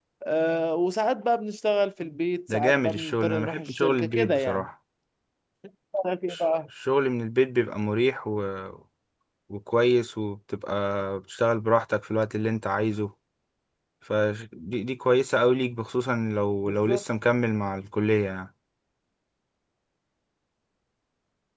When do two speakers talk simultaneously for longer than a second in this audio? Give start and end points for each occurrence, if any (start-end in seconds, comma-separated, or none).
2.5-4.7